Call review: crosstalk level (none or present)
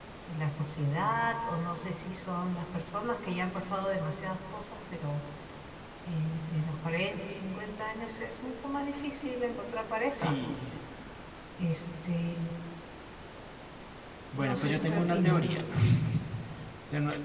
present